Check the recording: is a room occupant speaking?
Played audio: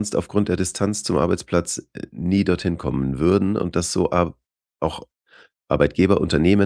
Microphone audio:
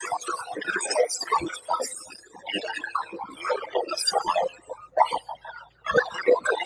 No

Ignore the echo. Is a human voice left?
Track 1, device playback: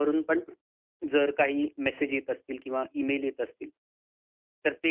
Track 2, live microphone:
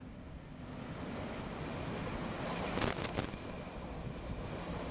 No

